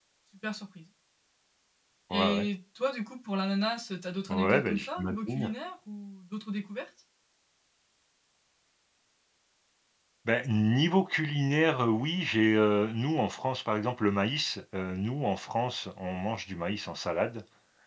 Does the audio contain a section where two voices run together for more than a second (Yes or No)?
Yes